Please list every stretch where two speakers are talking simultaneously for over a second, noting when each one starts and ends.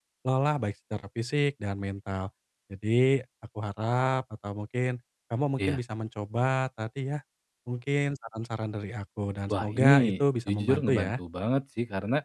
9.5-11.2

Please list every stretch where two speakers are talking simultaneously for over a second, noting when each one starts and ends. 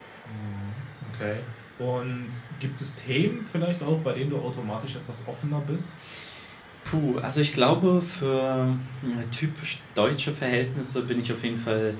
none

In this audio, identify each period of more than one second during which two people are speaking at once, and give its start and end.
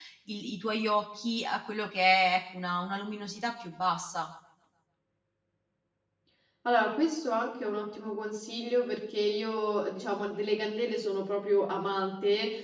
none

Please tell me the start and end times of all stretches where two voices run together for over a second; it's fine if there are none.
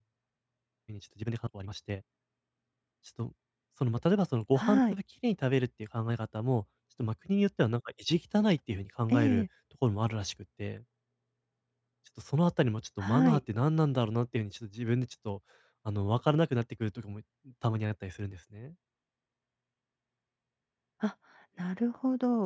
none

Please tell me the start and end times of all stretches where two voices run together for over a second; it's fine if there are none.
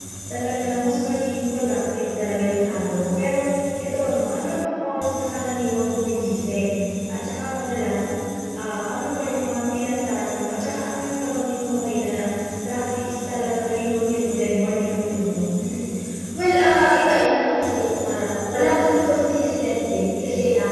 none

